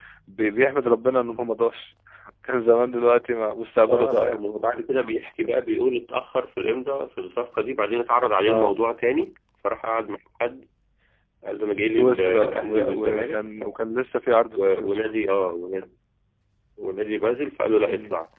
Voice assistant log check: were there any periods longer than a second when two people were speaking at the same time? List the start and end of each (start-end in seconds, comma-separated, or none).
11.9-13.6